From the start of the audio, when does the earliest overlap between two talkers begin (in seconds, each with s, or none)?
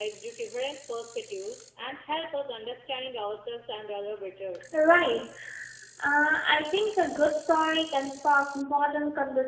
none